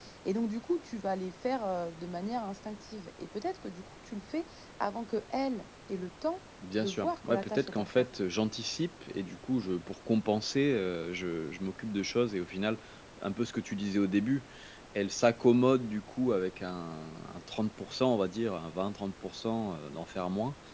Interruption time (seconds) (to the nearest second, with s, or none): 7 s